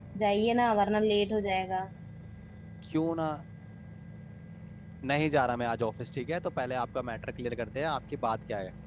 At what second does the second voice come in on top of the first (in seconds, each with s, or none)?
none